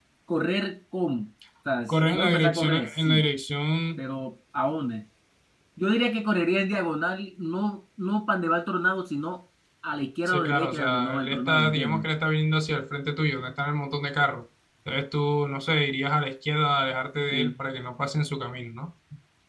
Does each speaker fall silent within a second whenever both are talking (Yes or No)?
No